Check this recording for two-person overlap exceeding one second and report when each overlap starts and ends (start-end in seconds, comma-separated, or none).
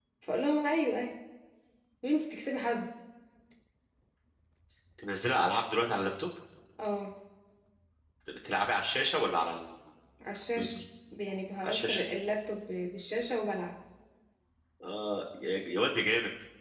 none